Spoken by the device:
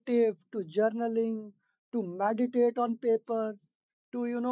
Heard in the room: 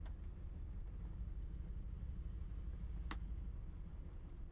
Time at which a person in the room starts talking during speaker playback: none

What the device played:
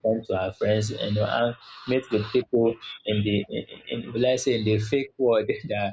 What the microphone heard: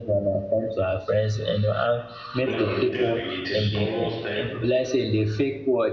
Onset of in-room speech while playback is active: 2.5 s

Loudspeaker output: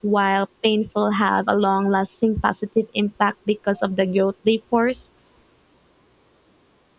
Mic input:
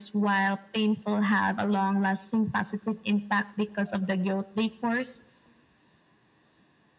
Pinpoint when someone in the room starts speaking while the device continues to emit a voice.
none

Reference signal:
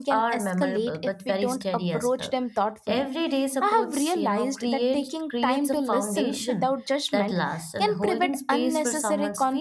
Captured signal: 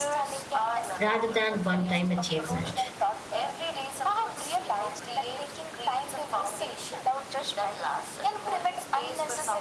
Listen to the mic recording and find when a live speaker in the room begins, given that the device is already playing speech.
1.0 s

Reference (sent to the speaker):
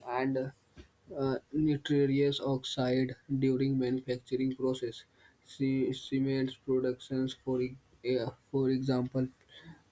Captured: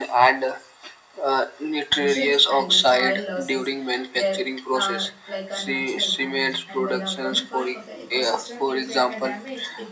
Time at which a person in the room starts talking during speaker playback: 2.0 s

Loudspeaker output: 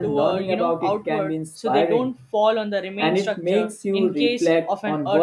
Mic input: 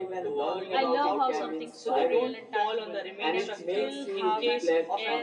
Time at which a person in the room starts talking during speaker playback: 0.7 s

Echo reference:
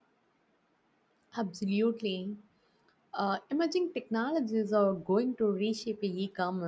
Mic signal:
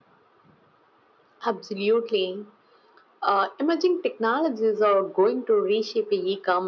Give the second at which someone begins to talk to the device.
none

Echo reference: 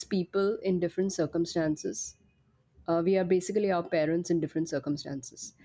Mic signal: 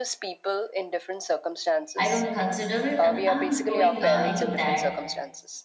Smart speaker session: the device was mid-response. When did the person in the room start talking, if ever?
2.0 s

